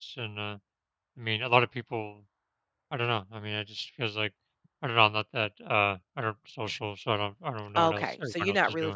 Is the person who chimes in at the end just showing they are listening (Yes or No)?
No